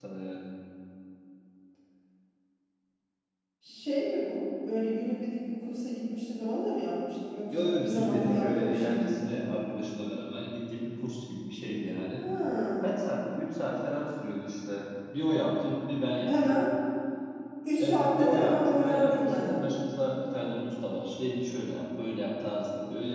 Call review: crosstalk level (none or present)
present